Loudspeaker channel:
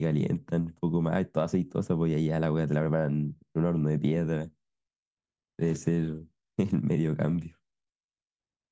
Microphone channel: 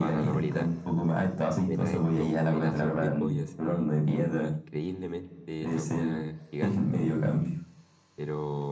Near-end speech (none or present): present